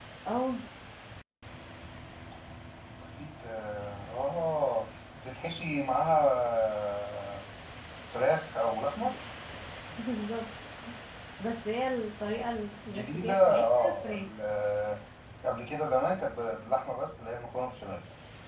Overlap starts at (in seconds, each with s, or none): 12.8 s